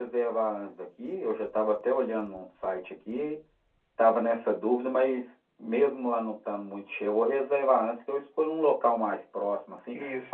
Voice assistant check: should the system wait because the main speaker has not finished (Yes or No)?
Yes